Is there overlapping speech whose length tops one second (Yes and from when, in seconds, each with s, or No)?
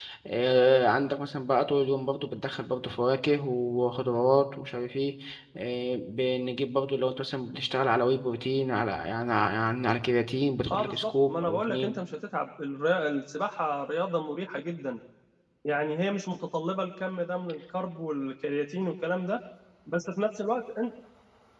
Yes, from 10.7 s